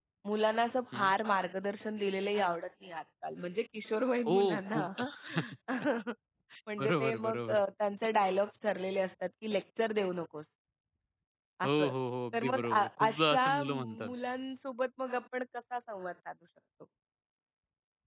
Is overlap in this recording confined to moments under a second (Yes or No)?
No